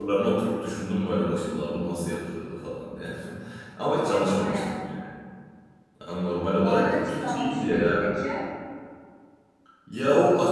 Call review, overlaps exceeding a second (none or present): present